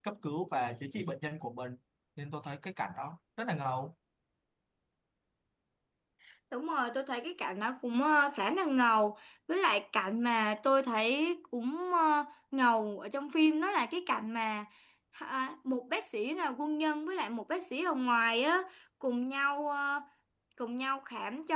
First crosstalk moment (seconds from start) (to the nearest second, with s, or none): none